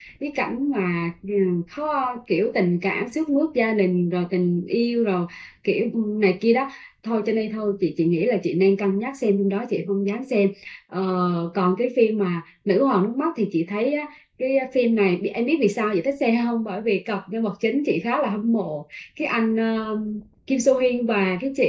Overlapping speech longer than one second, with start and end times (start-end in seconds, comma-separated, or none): none